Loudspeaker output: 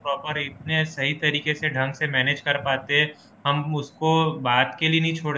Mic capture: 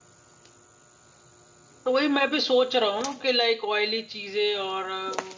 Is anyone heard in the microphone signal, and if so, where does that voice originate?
user only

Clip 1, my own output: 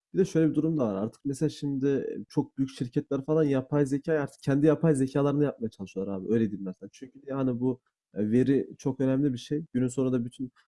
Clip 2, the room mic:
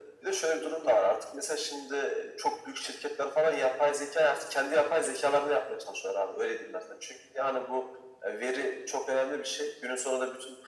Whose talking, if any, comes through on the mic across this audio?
echo only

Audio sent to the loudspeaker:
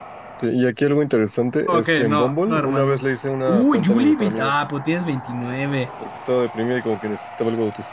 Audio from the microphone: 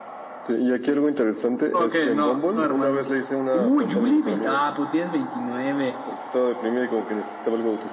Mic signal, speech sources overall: echo only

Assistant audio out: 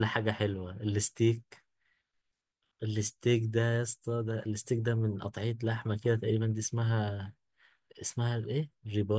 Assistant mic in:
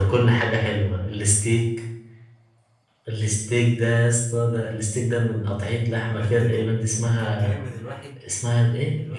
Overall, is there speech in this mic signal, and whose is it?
both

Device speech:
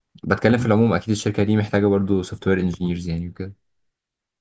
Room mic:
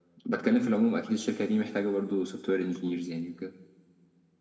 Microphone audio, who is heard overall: echo only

